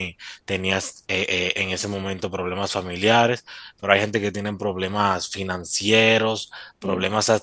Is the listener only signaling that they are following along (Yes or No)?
Yes